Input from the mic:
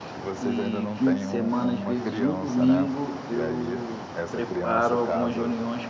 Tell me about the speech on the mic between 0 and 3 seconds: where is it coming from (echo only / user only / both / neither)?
both